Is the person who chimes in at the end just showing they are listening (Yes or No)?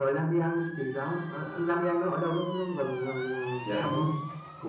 No